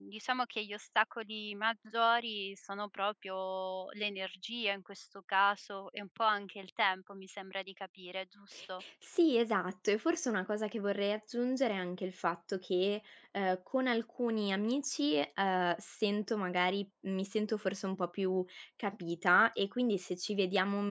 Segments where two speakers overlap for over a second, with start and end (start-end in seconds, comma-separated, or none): none